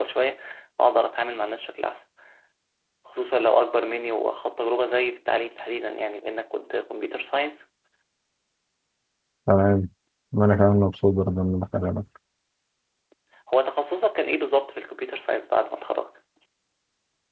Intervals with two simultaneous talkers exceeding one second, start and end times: none

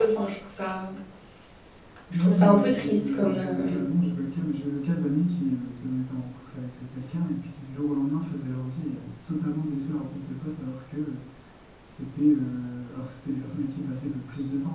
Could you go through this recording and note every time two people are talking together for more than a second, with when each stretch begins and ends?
2.1-3.8

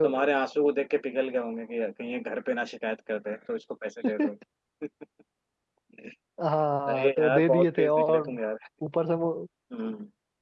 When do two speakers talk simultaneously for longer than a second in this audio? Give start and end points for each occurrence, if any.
6.9-8.4

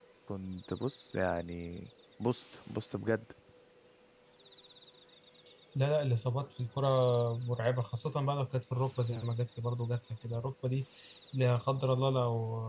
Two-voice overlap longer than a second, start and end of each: none

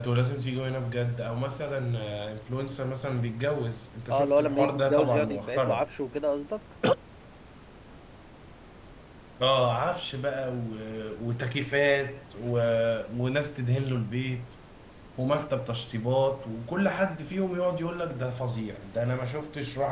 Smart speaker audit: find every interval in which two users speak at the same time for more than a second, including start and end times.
4.1-5.8

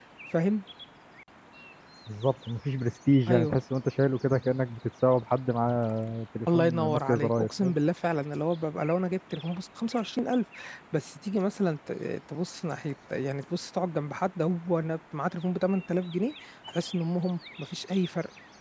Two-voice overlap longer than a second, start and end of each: 6.5-7.7

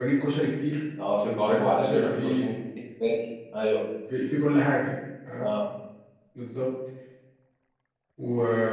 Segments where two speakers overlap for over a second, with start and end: 1.2-2.5

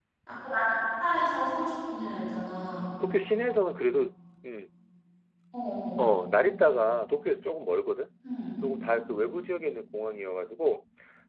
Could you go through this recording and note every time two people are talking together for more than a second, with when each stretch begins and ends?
none

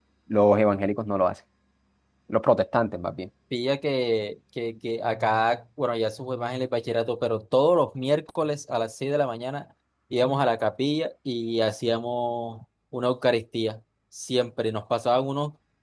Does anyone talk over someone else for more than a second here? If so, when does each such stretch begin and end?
none

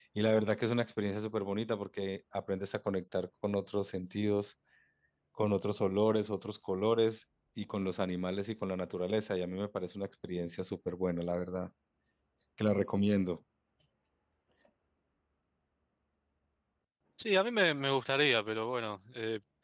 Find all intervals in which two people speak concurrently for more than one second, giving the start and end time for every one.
none

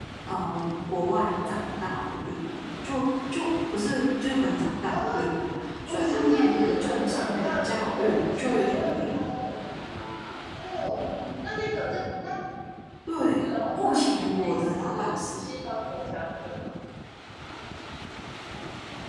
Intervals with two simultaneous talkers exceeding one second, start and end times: 5.9-9.2, 13.4-15.5

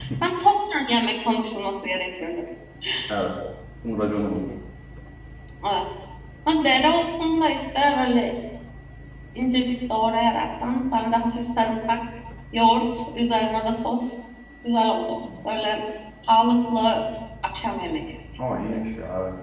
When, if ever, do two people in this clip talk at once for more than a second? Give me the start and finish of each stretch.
none

